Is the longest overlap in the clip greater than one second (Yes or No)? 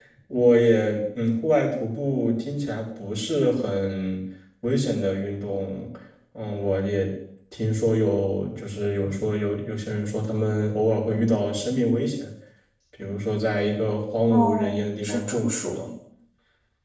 Yes